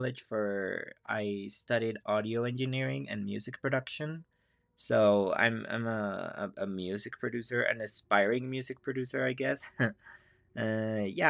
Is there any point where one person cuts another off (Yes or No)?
No